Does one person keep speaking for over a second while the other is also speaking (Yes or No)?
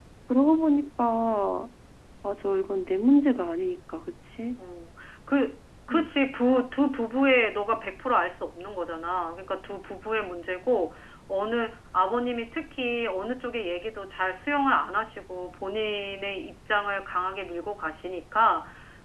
No